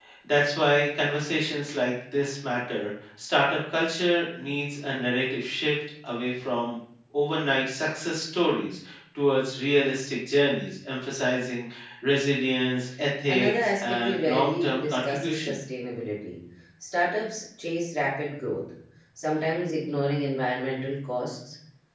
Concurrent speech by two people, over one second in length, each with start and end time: 13.3-15.6

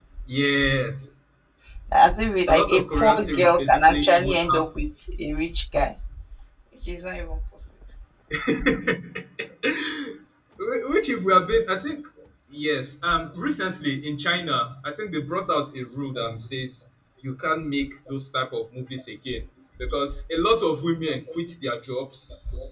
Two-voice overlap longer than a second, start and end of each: 2.5-4.7

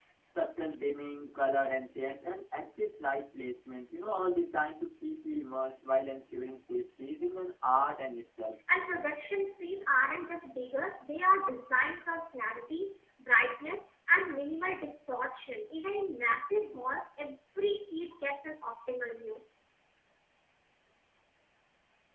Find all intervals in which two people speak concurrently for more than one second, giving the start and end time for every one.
none

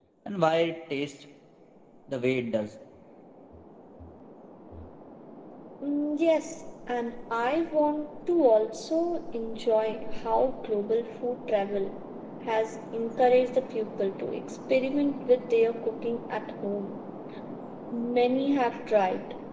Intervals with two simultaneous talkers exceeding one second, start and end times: none

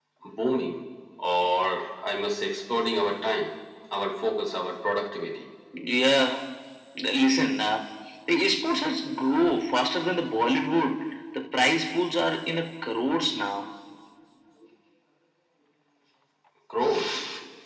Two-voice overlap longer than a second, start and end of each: none

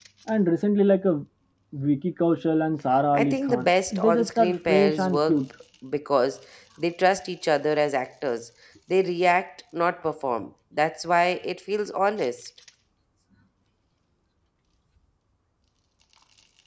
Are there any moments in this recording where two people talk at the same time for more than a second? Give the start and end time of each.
3.1-5.5

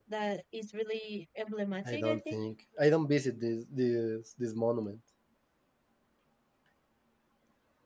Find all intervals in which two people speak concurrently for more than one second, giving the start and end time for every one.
none

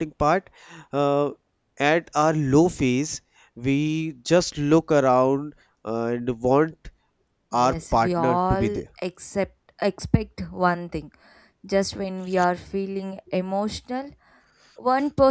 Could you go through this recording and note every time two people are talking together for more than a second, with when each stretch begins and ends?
7.5-8.8

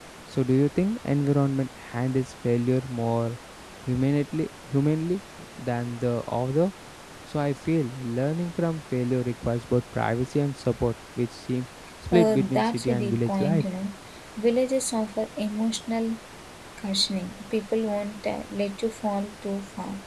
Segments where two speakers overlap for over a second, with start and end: 12.2-13.6

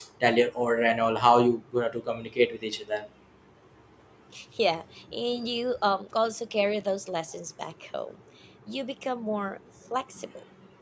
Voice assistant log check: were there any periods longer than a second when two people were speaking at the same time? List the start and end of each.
none

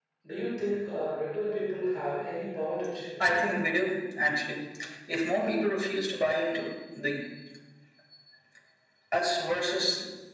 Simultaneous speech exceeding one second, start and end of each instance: none

